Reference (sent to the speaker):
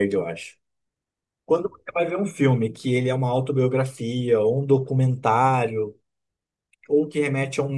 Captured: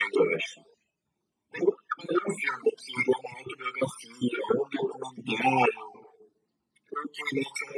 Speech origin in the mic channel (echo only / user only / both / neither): echo only